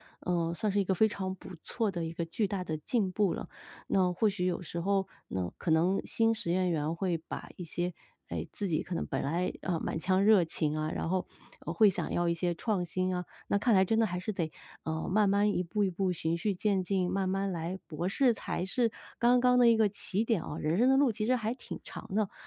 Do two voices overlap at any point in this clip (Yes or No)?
No